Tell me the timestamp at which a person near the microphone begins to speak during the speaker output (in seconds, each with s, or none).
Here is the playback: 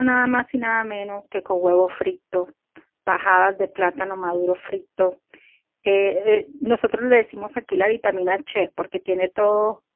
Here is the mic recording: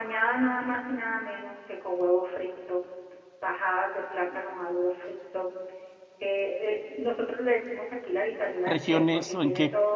8.6 s